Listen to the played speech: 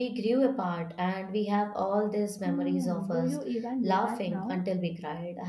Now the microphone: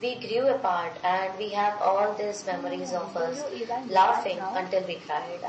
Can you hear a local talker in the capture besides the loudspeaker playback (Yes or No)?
No